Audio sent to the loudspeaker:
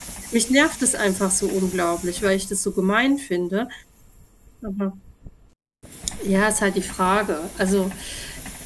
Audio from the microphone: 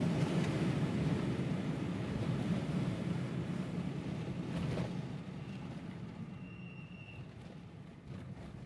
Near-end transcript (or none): none